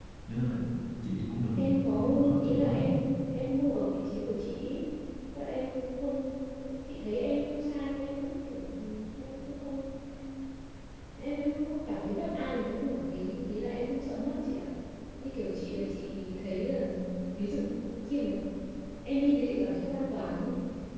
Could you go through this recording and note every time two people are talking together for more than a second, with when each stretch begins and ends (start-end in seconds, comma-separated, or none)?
1.6-3.0